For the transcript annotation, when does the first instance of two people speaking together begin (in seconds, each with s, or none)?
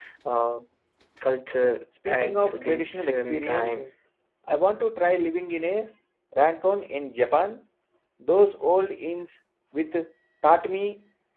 2.0 s